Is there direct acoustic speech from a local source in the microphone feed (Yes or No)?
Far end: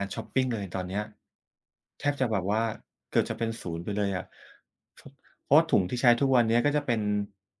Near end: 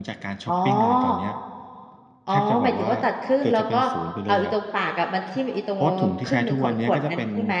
Yes